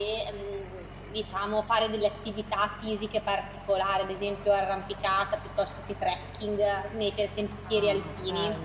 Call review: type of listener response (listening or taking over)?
taking over